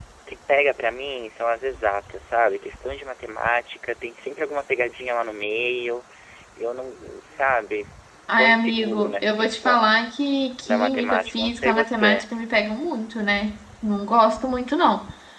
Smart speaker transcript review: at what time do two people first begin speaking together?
8 s

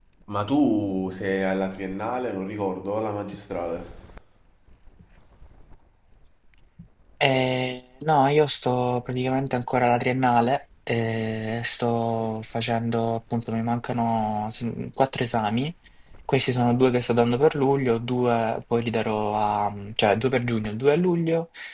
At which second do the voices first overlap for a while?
none

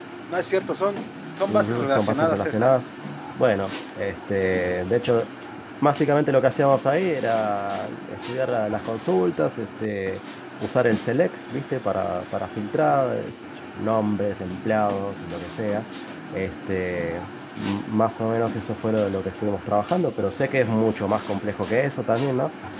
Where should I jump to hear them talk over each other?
1 s

